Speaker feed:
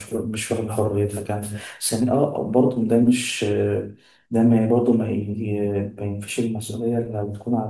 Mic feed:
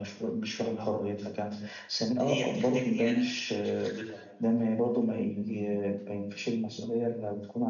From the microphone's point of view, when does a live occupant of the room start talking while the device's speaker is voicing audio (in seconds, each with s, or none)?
2.2 s